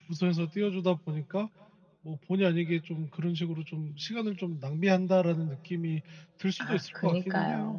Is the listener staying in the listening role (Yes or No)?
No